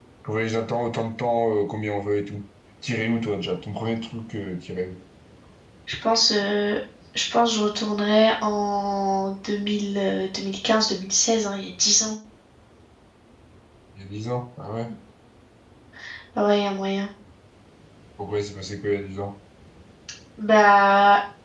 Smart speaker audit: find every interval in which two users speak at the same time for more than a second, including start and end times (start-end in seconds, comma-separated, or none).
none